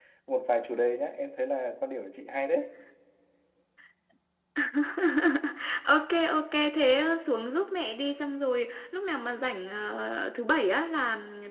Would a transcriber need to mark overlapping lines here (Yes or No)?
No